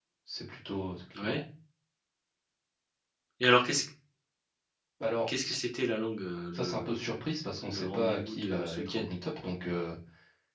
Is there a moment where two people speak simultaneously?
Yes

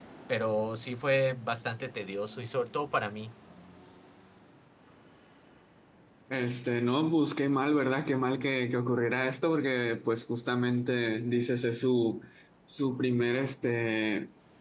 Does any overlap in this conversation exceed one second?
No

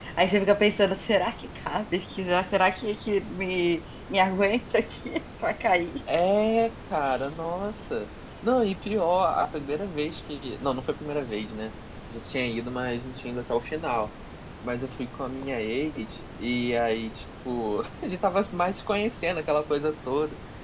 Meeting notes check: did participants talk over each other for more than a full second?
No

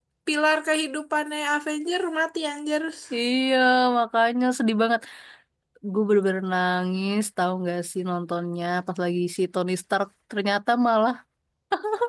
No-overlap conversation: Yes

